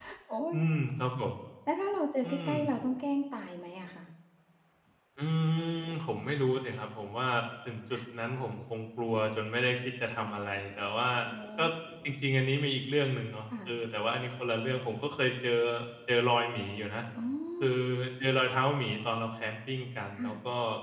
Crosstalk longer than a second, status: none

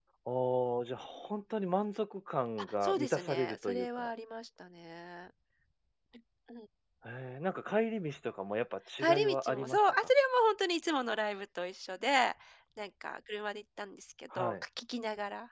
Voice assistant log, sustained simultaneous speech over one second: present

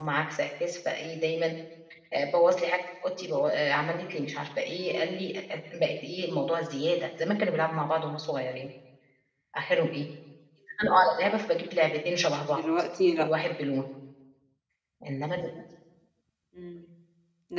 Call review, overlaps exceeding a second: none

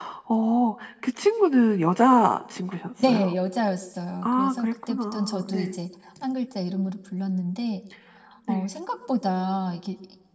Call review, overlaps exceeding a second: present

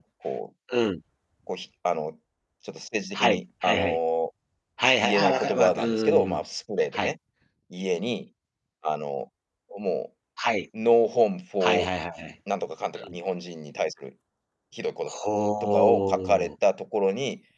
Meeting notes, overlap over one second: present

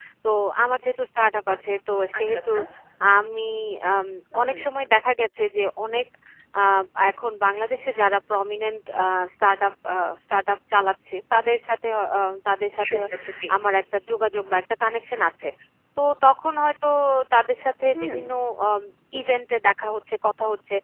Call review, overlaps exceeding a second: none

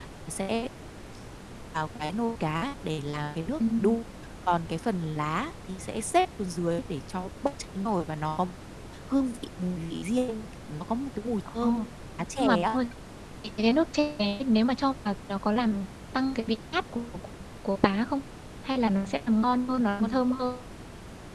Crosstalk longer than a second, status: none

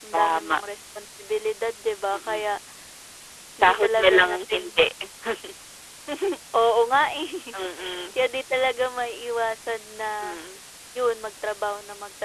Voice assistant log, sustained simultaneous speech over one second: present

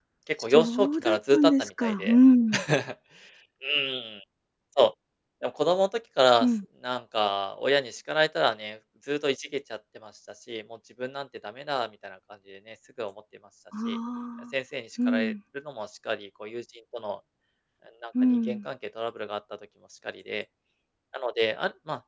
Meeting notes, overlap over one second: present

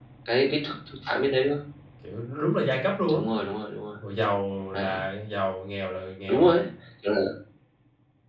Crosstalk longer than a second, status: none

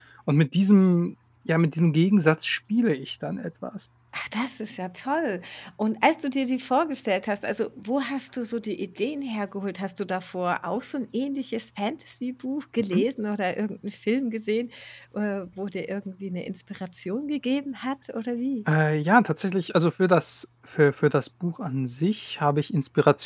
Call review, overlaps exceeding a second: none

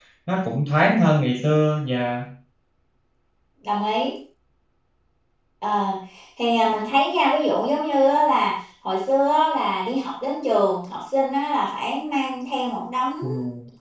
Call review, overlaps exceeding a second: none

